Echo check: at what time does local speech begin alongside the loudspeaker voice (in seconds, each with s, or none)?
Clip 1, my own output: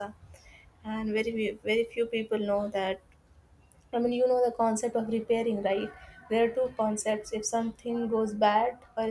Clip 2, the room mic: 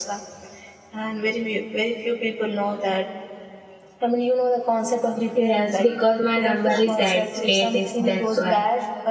5.3 s